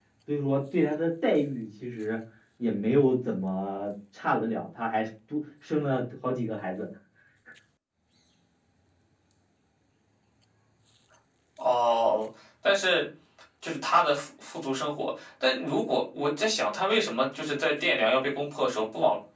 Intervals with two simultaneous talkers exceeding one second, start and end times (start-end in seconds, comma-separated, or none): none